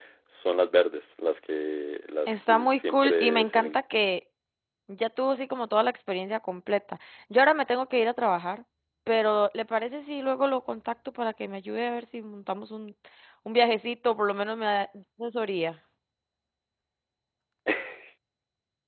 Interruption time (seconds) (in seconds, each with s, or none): 2.3 s